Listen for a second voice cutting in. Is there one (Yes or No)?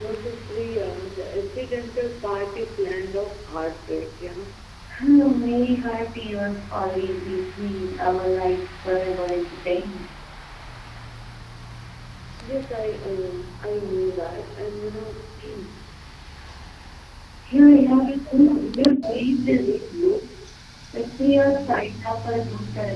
Yes